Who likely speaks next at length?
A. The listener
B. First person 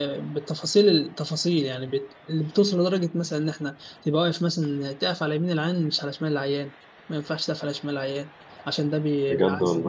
B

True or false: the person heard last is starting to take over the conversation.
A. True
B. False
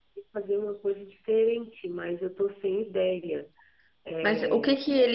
A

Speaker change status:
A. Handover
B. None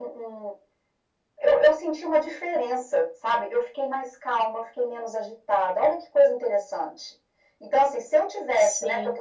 B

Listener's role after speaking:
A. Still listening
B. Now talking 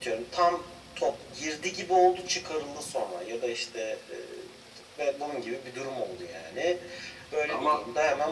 A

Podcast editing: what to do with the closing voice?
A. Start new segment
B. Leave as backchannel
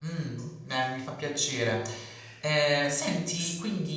B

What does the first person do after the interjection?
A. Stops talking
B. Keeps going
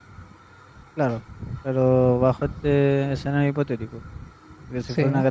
B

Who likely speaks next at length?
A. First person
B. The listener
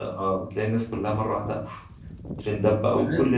B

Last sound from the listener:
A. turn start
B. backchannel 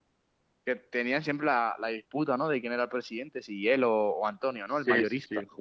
A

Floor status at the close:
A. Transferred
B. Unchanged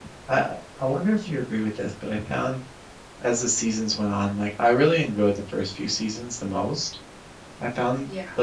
B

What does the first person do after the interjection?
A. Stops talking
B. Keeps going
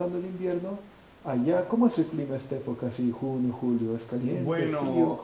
A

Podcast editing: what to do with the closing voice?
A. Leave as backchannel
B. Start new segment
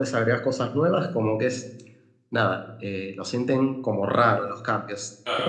B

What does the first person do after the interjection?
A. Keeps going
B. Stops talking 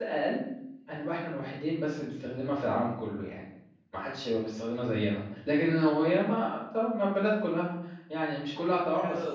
B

